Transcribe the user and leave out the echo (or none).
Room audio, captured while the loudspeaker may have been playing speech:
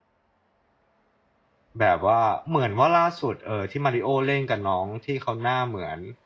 แบบว่าเหมือนว่าล่าสุดเอ่อที่ Mario เล่นกับน้องที่เขาหน้าเหมือน